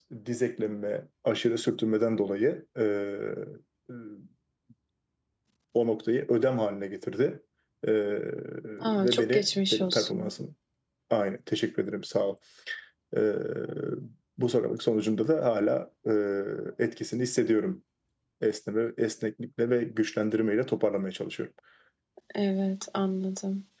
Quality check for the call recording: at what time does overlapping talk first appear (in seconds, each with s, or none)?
9.0 s